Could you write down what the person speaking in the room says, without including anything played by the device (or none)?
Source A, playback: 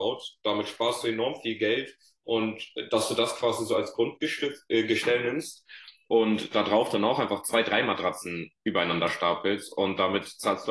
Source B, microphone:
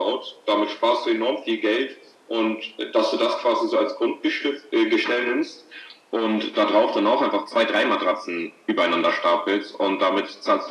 none